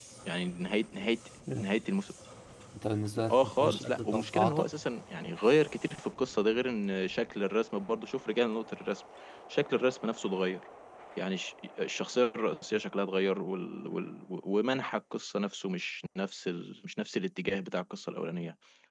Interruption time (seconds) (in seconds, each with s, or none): 3.3 s